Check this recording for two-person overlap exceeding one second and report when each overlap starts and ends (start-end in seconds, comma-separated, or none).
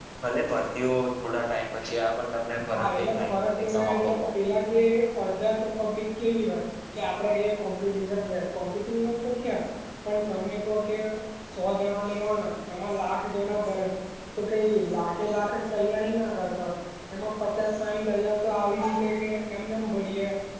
2.7-4.4